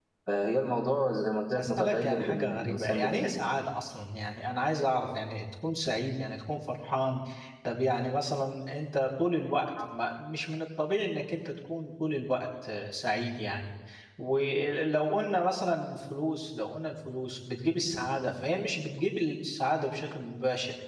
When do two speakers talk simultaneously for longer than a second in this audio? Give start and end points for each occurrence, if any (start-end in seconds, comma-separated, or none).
1.6-3.3